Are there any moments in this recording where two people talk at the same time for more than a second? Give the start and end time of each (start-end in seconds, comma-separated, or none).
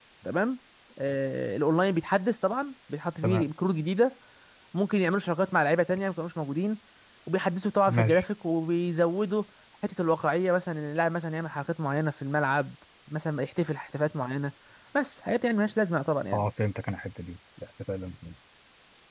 none